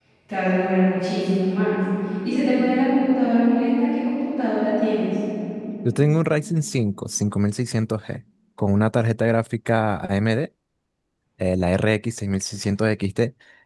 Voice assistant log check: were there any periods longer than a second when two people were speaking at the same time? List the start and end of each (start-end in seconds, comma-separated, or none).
none